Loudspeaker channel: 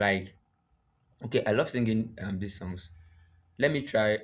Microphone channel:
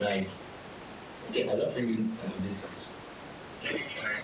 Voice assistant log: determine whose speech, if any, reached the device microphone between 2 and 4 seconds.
echo only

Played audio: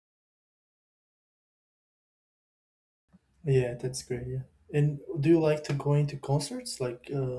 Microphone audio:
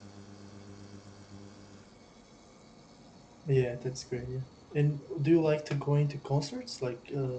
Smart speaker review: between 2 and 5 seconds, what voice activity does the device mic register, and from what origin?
echo only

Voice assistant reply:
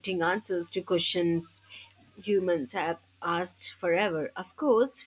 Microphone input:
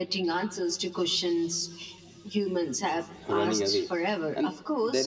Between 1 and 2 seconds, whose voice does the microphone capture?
echo only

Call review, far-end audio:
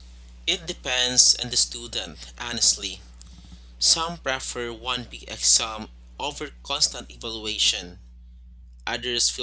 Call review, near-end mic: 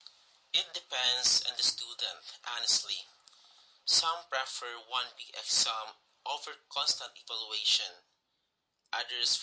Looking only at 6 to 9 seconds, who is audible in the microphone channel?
echo only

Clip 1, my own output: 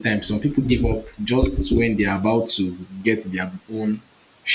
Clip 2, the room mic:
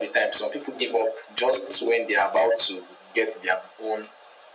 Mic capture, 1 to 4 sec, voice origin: echo only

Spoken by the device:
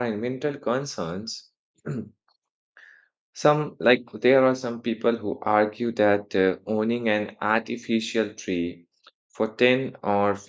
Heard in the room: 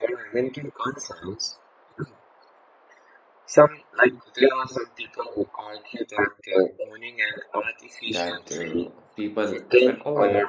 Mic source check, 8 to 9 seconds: both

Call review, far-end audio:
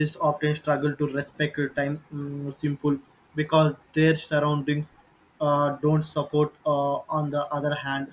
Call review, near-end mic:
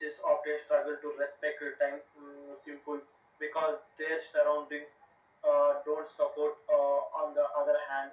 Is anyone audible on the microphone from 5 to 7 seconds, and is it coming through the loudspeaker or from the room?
echo only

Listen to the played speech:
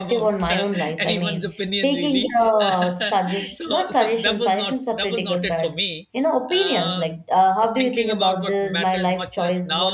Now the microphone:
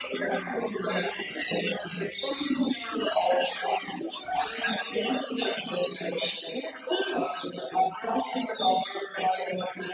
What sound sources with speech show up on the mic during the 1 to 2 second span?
echo only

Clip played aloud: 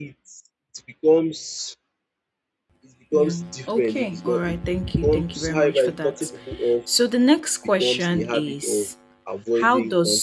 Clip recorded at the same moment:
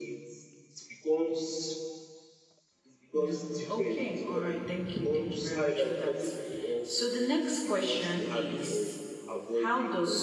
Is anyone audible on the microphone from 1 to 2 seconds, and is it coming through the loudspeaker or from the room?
echo only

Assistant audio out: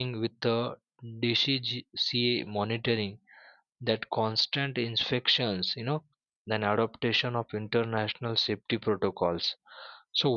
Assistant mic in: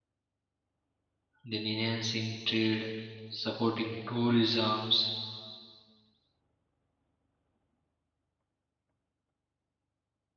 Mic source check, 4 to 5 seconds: user only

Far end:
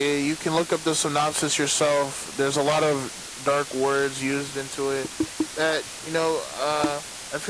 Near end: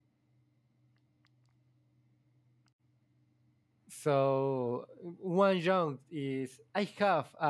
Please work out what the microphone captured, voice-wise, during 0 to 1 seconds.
neither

